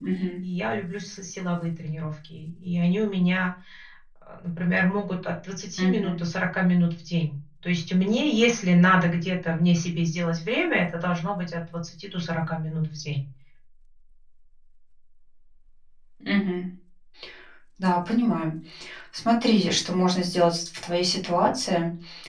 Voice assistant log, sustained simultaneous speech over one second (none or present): none